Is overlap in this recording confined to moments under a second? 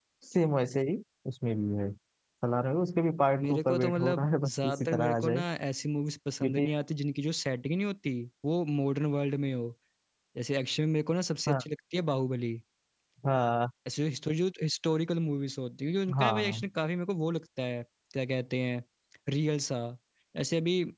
No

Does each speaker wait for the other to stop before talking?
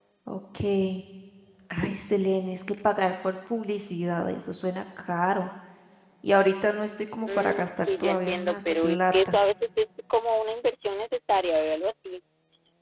No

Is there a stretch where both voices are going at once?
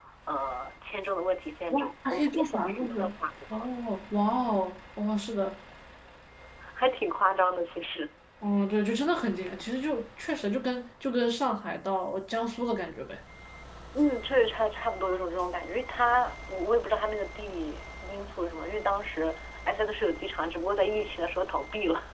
Yes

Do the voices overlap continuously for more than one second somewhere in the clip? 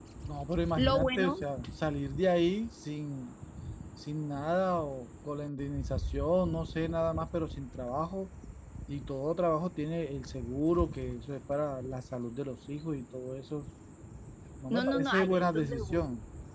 Yes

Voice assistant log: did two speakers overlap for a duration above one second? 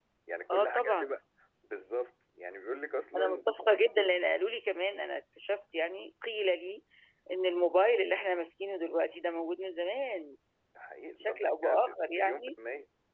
Yes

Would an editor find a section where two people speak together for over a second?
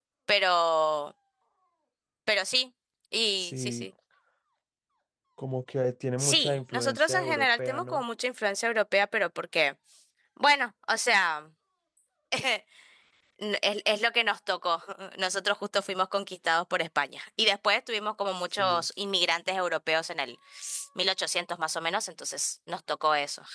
Yes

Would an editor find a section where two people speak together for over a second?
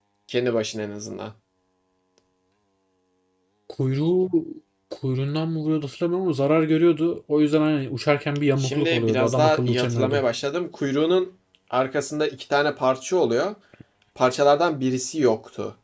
Yes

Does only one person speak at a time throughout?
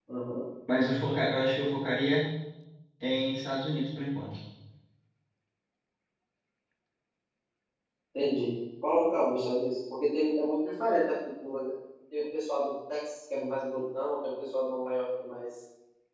Yes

